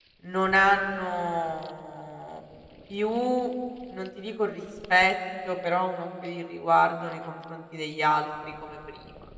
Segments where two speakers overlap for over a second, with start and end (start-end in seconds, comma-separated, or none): none